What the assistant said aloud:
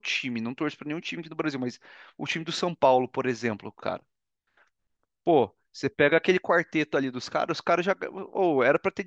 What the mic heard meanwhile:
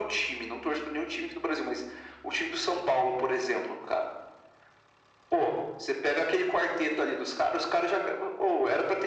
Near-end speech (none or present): none